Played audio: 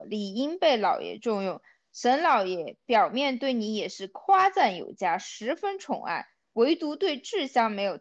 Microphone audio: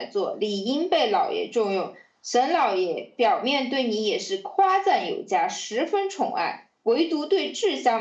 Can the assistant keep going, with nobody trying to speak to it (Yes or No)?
Yes